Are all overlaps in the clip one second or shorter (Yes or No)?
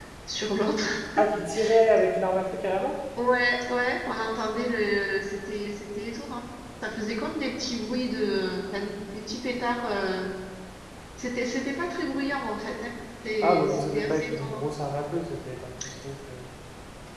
No